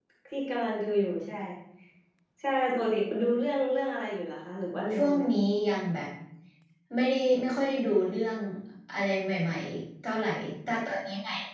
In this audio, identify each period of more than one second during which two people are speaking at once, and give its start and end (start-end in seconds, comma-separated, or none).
none